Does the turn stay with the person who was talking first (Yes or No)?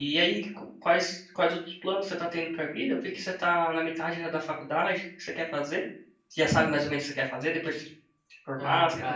No